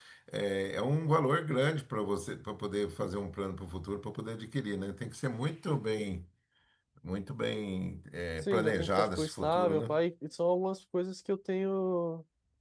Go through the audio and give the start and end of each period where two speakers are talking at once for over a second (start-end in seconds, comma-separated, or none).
8.4-9.8